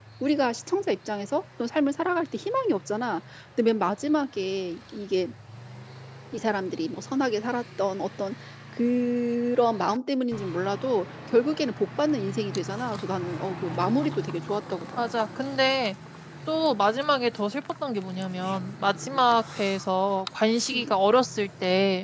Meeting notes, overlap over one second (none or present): none